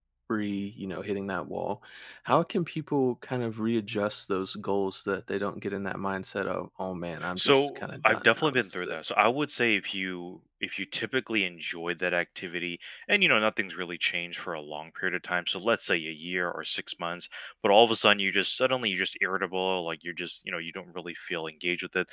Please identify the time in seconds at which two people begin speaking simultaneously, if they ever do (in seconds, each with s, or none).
7.2 s